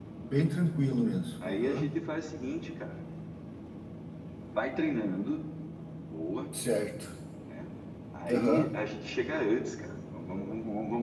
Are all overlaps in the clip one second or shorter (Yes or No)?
Yes